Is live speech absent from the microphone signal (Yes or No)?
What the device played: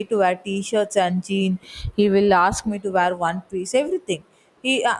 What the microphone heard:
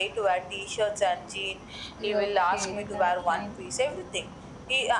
No